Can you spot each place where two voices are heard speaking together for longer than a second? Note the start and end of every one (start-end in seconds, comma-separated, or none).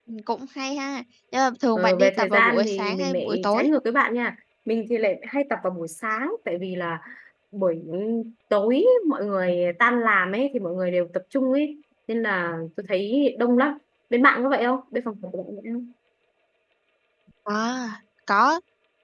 1.8-3.7